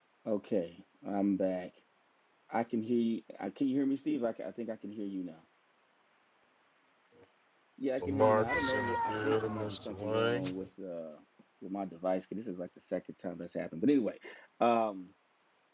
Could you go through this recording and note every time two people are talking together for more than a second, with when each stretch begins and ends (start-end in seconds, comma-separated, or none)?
8.0-10.5